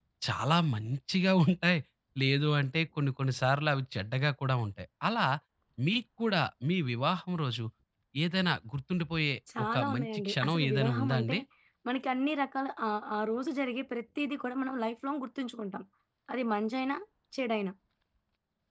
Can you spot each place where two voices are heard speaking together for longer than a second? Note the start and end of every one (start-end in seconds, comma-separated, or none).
9.6-11.4